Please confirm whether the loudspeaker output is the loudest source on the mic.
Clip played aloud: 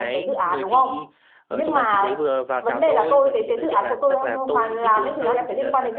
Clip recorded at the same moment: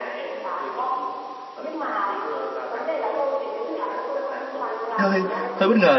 No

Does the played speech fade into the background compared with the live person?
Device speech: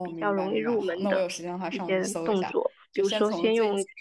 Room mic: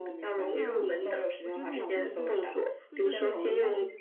No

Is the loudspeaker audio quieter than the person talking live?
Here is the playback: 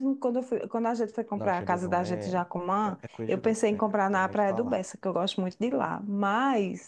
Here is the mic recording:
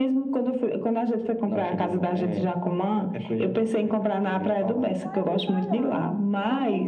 No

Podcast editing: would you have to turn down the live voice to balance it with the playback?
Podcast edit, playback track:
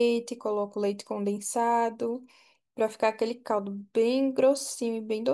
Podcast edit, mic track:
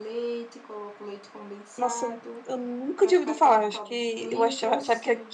Yes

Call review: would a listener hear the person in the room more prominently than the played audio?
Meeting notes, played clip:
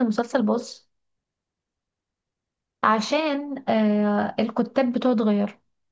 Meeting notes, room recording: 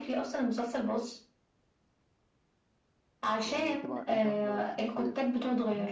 No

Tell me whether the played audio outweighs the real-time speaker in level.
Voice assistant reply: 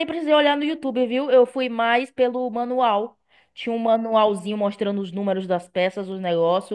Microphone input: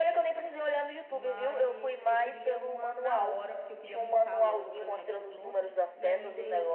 Yes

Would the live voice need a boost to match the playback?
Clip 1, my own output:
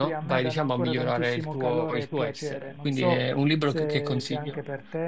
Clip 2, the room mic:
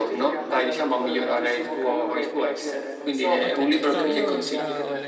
Yes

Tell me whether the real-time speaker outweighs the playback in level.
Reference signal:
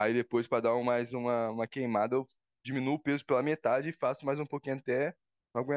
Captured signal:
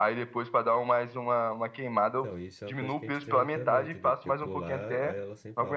No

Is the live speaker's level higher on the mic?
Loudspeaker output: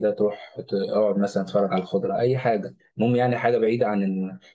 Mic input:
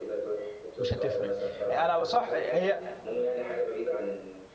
Yes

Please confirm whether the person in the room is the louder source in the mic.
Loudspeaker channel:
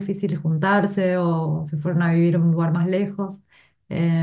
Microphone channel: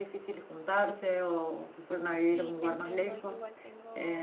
No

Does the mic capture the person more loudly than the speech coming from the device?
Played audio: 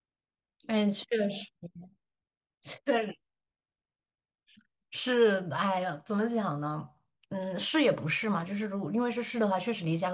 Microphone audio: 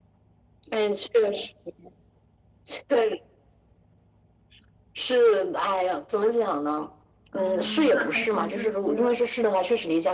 No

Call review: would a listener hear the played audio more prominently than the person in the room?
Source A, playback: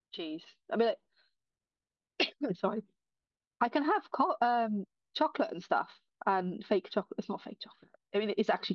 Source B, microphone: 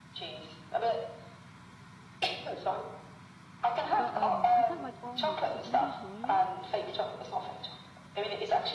Yes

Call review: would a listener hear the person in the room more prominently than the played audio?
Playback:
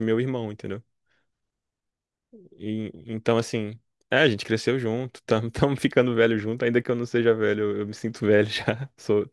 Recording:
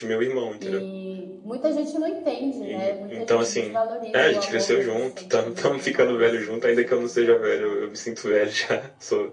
No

